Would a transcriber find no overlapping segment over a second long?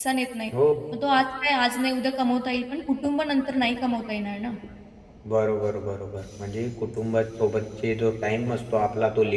Yes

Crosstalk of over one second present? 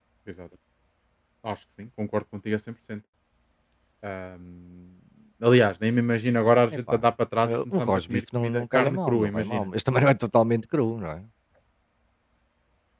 Yes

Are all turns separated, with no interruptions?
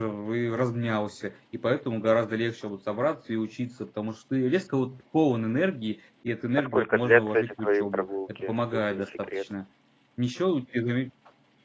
No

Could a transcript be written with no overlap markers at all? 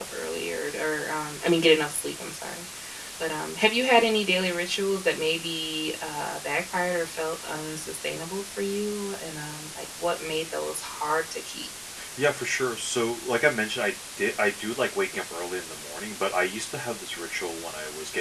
Yes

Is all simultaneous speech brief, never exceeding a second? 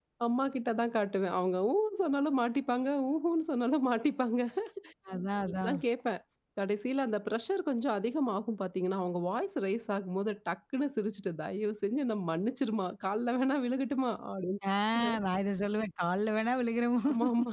Yes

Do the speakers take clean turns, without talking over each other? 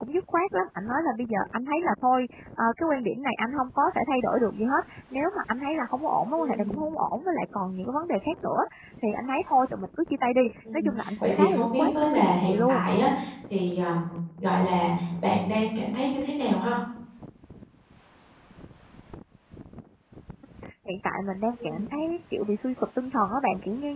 No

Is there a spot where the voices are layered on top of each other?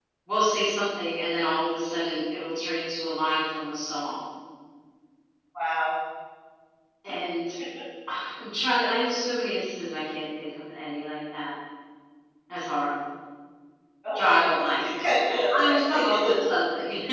Yes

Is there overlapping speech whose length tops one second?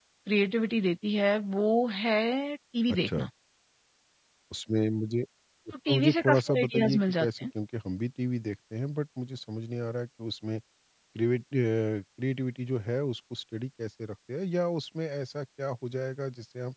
Yes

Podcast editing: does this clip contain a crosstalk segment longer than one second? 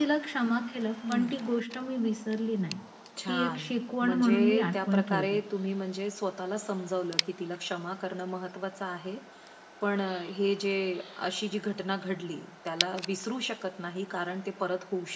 Yes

